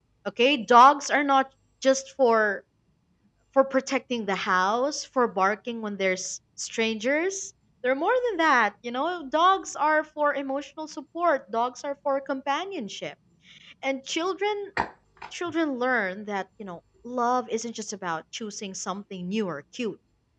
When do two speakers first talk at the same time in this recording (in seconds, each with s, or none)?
none